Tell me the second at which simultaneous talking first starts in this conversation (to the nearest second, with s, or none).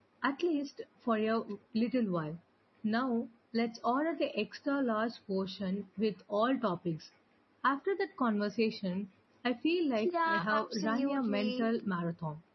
10 s